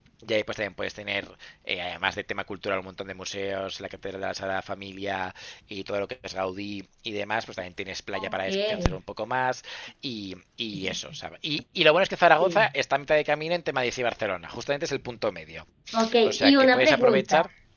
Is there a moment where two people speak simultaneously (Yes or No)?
Yes